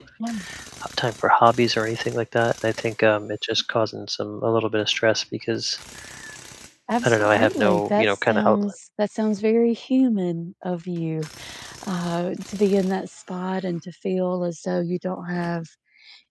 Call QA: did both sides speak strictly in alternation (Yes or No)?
No